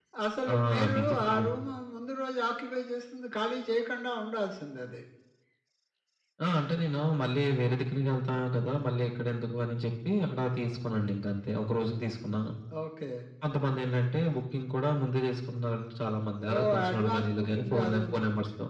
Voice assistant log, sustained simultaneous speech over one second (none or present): present